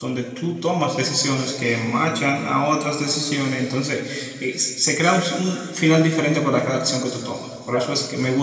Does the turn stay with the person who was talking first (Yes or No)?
Yes